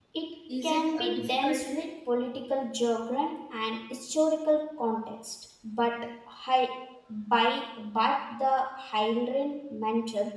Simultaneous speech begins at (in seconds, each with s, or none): 0.6 s